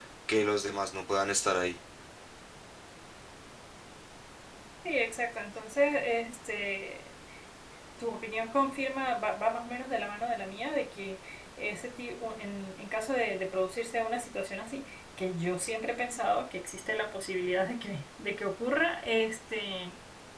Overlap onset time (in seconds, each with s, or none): none